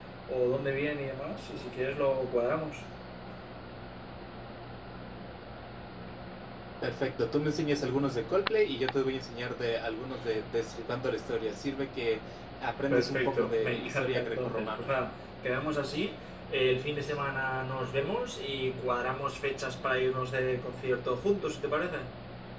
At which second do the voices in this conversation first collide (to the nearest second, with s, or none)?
13 s